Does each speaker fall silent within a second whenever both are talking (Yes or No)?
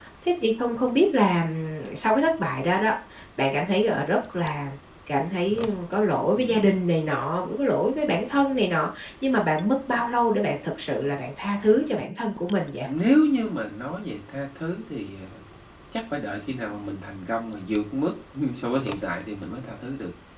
Yes